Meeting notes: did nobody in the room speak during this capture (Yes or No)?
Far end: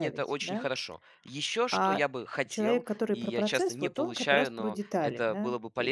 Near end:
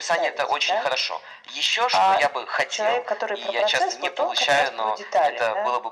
Yes